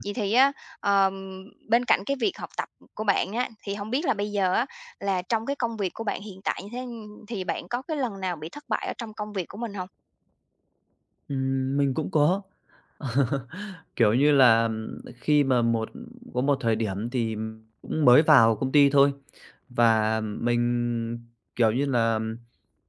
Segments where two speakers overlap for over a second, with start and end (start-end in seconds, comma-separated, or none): none